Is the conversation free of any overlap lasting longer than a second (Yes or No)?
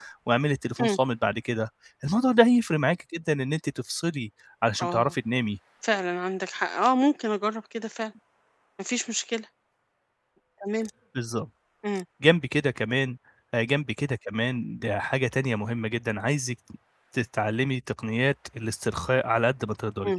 Yes